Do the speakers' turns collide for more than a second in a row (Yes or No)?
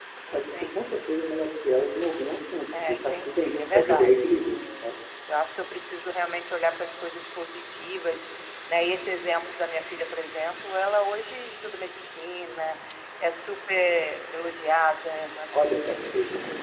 Yes